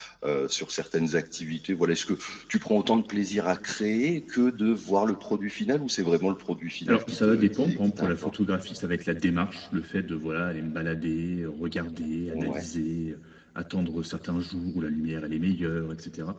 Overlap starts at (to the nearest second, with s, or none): 7 s